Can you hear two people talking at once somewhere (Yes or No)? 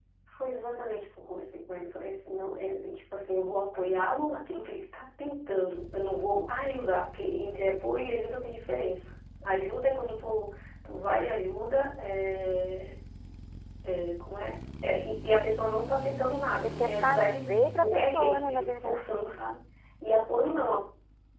Yes